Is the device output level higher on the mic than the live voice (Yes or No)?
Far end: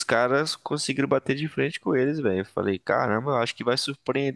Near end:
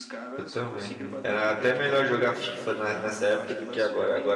No